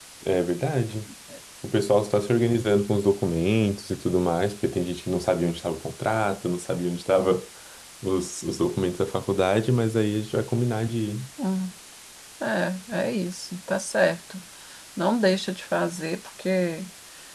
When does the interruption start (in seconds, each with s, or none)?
none